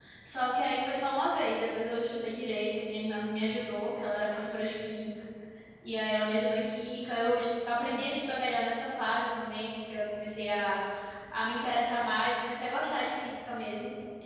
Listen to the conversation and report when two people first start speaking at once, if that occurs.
none

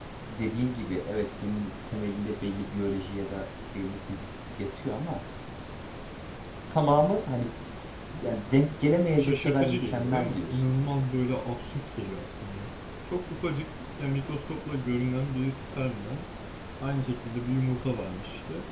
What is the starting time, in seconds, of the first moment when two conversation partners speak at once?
9.2 s

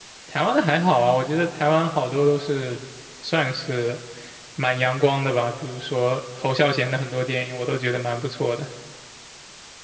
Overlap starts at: none

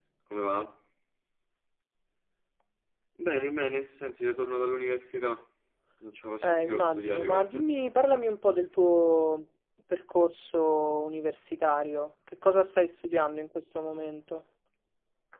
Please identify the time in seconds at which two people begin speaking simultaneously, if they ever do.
6.4 s

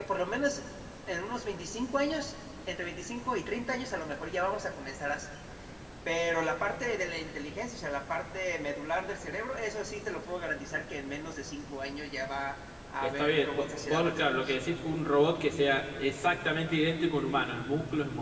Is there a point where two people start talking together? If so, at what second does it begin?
13.0 s

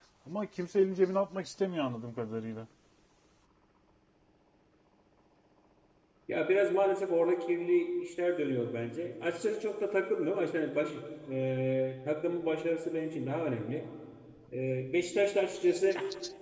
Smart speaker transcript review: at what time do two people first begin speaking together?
none

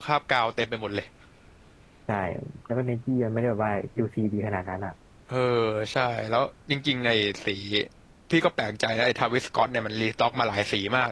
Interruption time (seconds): none

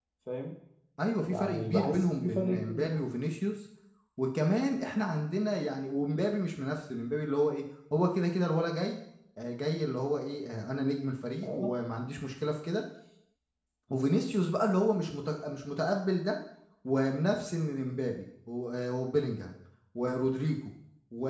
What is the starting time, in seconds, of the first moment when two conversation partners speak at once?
1.3 s

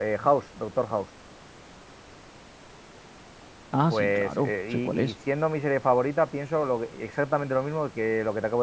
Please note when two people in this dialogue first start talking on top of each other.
3.9 s

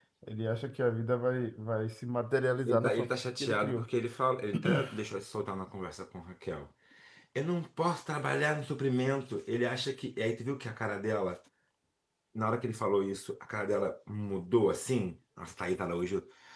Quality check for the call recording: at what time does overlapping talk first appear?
2.7 s

